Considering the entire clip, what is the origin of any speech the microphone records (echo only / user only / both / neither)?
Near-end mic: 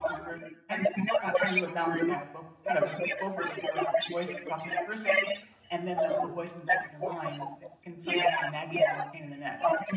both